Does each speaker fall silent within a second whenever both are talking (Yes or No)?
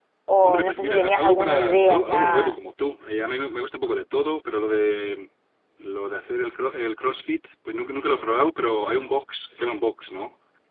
No